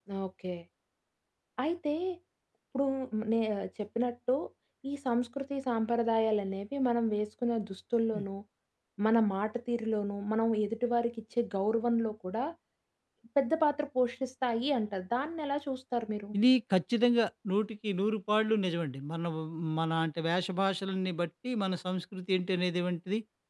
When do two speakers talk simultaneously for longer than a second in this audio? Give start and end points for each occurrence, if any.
none

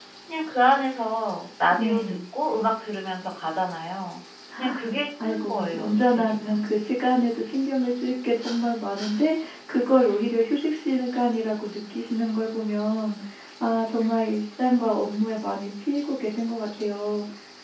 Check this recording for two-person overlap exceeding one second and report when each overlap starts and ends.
5.2-6.6

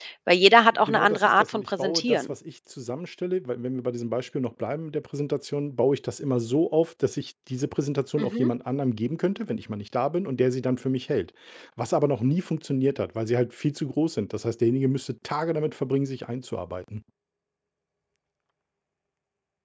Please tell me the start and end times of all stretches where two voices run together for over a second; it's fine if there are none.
0.9-2.3

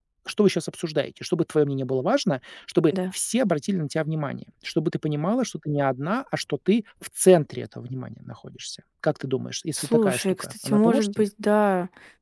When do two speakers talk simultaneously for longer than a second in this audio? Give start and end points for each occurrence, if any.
9.8-11.1

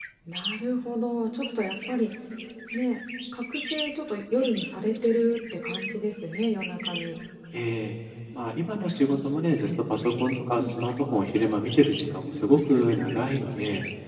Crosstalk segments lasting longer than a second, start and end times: none

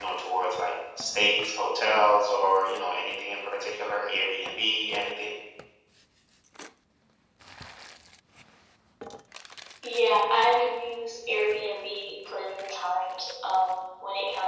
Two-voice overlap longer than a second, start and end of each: none

